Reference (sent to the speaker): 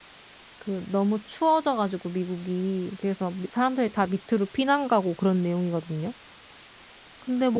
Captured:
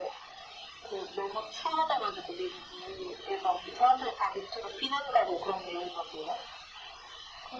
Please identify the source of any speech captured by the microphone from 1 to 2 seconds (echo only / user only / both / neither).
echo only